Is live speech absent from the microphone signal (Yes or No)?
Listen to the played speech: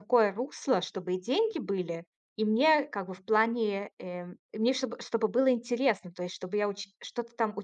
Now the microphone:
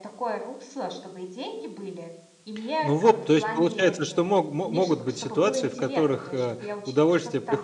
No